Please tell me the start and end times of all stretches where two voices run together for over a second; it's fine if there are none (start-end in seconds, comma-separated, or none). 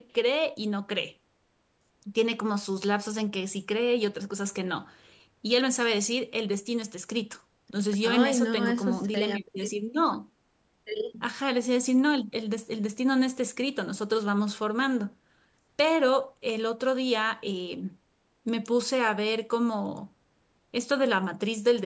8.0-9.4